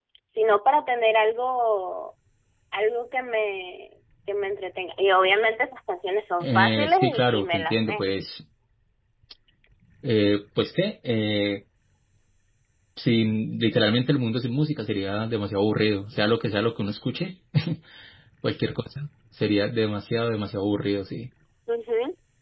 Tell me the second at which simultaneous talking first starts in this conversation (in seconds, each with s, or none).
6.4 s